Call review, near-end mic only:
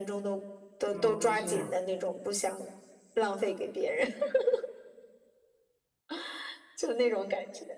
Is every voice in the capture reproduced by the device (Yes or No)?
No